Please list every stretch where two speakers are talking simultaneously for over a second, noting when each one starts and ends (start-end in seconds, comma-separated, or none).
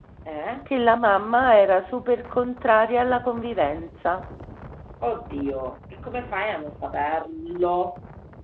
none